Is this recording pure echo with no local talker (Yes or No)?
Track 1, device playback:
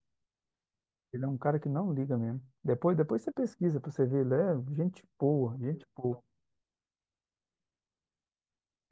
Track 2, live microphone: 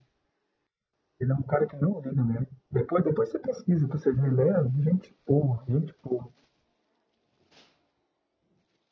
Yes